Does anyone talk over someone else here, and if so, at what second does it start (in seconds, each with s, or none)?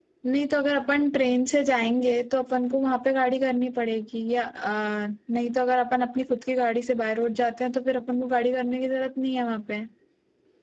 none